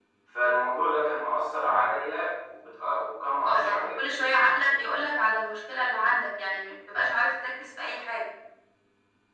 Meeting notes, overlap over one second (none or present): present